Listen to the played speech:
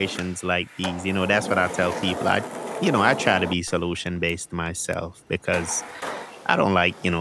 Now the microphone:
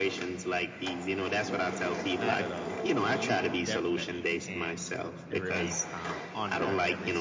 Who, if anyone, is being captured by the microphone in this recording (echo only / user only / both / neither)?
both